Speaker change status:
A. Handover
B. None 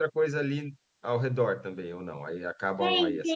A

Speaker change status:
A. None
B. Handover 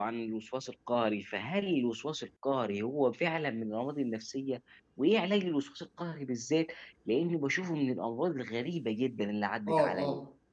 B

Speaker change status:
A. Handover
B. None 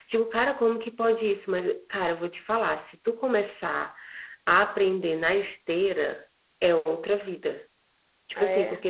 B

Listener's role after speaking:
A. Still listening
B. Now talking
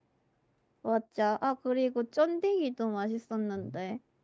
B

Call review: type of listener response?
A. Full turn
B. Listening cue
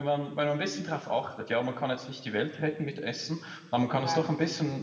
B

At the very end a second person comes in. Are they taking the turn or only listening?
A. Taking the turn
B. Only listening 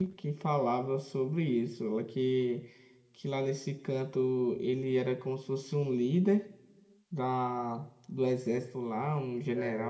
A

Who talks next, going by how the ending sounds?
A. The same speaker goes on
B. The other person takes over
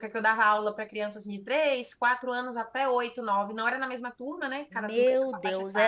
B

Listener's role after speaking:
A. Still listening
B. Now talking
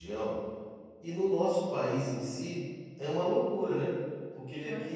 A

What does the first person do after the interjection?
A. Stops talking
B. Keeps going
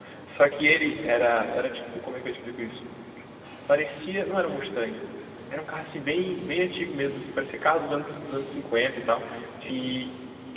B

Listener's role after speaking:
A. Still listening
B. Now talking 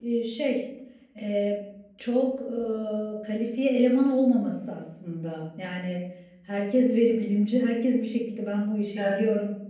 A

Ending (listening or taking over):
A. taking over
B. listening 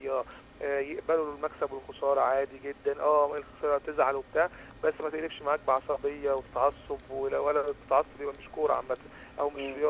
A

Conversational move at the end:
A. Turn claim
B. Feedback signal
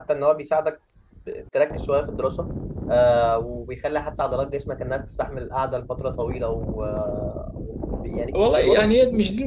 A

